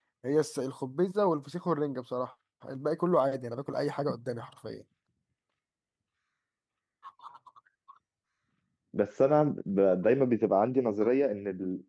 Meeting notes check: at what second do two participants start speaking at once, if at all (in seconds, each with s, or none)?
none